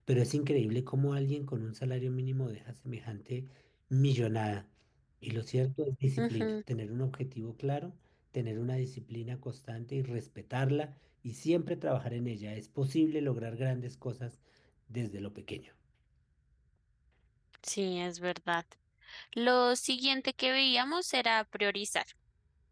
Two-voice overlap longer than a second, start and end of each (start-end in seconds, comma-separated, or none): none